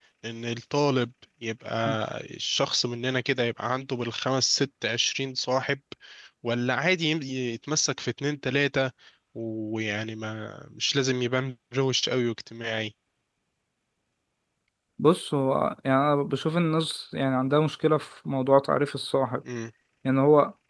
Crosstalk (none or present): none